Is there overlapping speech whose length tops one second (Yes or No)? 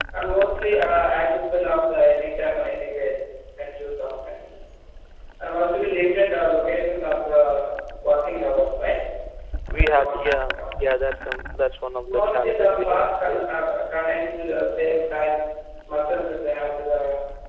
Yes